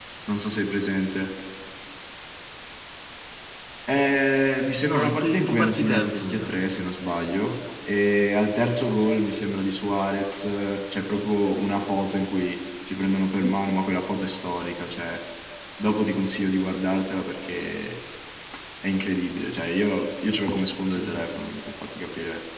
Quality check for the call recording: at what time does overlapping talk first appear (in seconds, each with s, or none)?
4.9 s